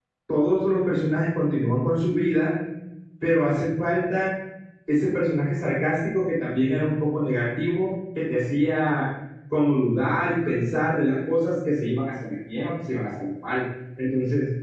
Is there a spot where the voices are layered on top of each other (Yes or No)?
No